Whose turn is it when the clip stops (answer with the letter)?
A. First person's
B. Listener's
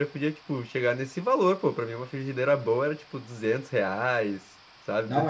B